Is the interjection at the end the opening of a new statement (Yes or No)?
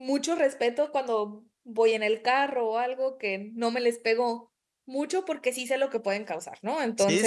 Yes